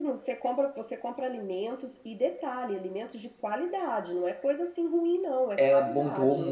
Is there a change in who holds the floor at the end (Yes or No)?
Yes